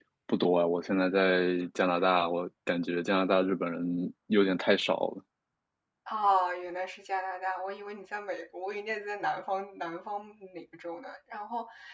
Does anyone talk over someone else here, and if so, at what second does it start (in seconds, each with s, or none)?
none